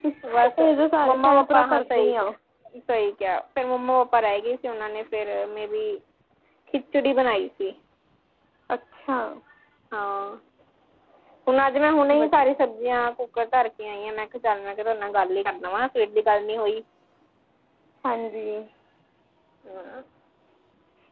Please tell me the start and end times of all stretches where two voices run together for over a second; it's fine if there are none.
1.1-2.3

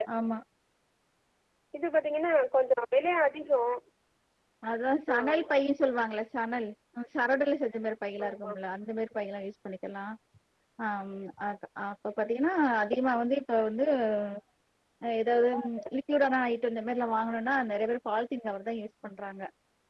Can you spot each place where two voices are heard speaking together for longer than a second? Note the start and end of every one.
none

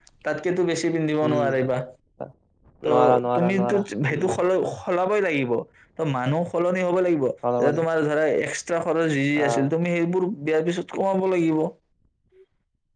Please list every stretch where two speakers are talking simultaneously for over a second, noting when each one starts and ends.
2.9-4.3

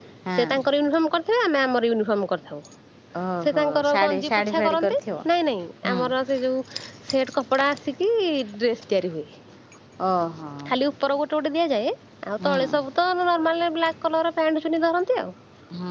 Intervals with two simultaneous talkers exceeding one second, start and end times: 3.4-4.9

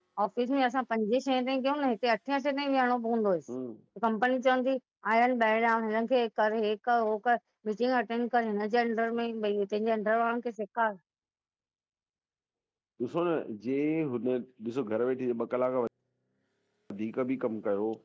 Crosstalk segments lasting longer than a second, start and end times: none

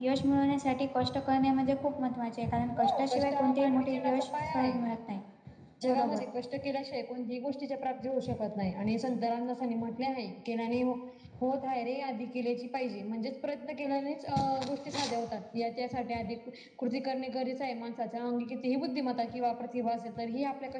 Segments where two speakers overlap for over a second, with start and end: 2.8-4.8

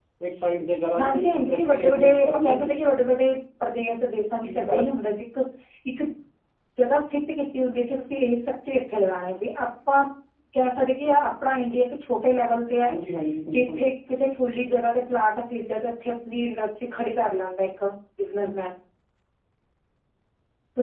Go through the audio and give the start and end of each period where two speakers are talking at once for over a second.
1.0-2.8

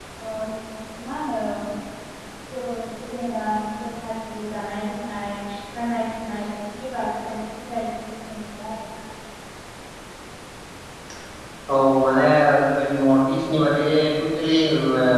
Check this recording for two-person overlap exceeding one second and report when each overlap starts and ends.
none

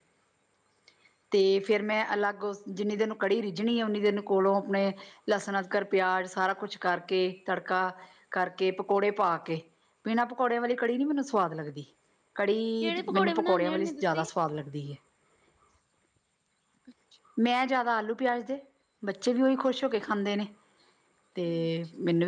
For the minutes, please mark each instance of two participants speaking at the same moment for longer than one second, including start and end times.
12.8-14.2

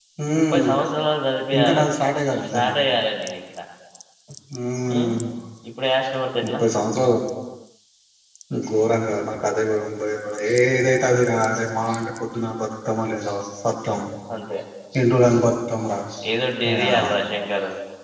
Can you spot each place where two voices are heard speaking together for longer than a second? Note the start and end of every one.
none

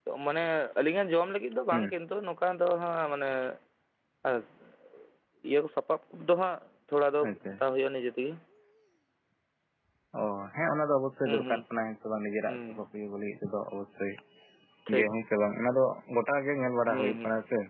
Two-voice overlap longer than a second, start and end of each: none

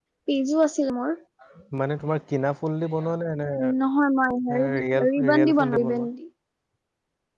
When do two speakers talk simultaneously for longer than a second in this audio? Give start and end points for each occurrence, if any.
4.8-6.1

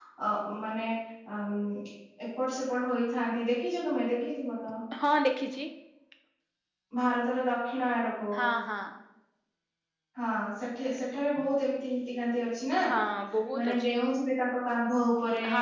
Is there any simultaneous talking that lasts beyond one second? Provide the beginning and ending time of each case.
none

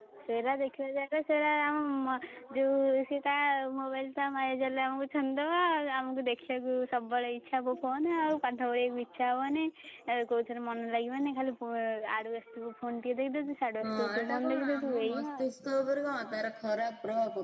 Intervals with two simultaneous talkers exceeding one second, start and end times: 13.8-15.5

